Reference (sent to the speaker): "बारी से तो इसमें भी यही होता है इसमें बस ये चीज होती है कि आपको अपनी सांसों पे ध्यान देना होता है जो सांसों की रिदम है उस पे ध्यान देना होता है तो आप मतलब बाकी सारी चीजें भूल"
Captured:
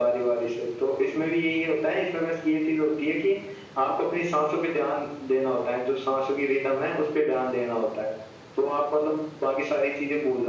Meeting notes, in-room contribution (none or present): none